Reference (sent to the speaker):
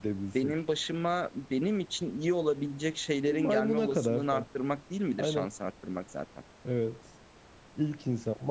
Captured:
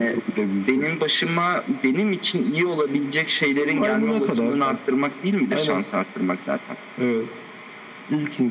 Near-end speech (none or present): none